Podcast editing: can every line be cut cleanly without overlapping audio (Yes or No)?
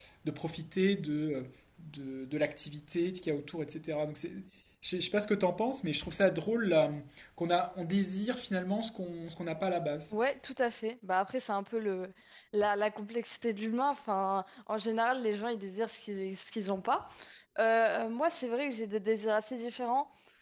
Yes